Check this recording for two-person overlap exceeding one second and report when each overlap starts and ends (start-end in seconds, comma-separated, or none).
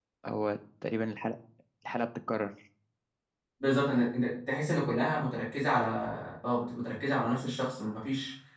none